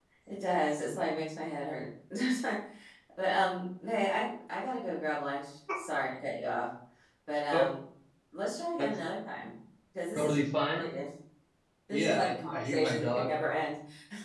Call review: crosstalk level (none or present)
present